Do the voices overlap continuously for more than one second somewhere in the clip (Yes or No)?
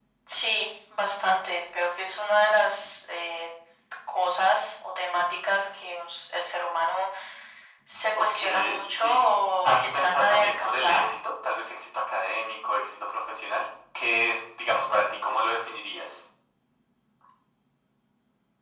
Yes